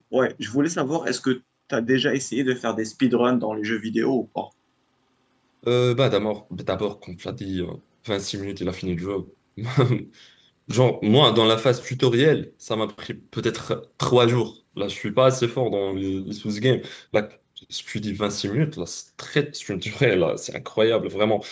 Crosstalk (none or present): none